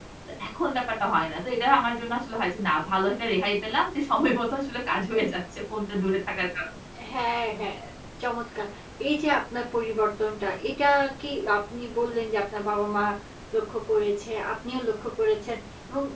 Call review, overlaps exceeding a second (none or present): none